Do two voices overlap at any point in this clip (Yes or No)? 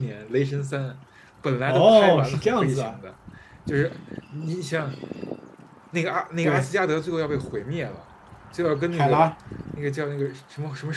Yes